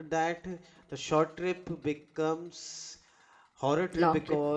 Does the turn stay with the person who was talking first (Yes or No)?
Yes